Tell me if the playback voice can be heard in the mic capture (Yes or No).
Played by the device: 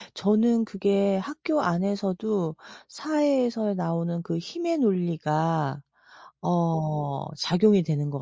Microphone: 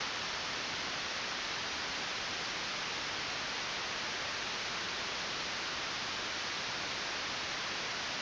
No